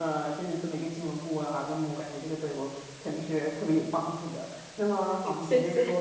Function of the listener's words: listening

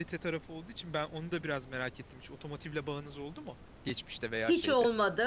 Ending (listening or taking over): taking over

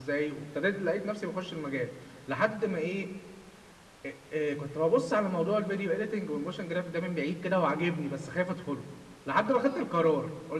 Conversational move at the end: listening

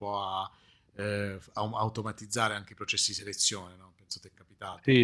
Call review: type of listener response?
taking over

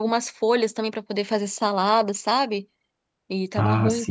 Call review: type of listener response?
listening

